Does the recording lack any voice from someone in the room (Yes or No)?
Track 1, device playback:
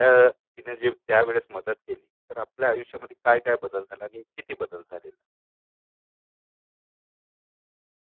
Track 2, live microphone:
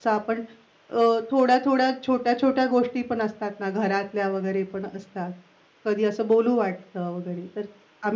No